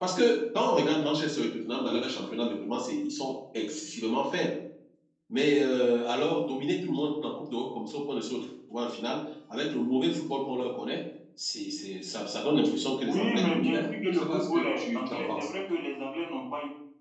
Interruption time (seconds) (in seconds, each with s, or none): 13.0 s